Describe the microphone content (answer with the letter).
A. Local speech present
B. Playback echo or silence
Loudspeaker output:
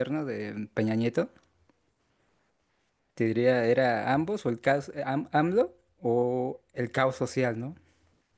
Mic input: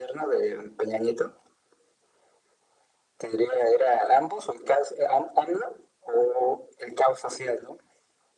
B